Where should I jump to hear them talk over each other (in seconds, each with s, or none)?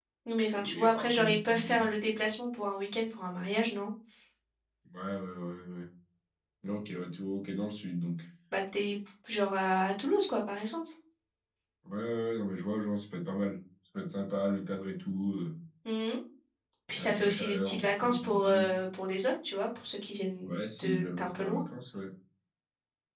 0.6 s